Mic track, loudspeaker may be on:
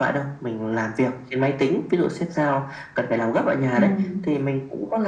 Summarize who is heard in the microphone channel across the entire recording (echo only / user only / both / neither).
both